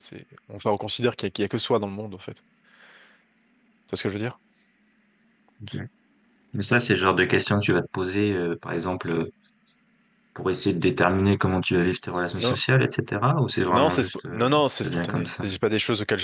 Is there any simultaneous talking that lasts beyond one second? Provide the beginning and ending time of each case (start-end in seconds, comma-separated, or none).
13.7-15.4